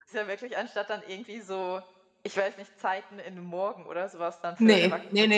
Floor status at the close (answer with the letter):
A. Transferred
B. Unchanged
A